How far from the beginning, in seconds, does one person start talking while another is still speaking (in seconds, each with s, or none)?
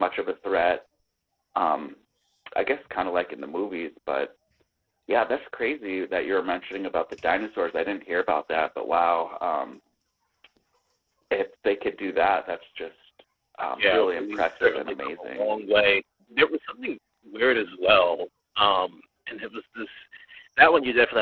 13.8 s